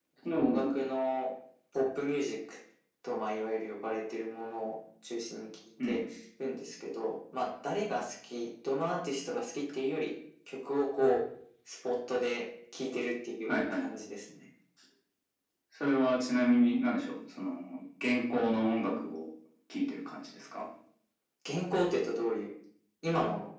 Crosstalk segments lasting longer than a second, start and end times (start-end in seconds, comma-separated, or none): none